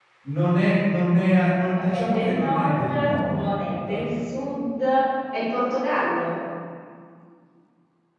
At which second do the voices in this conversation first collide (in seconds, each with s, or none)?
1.7 s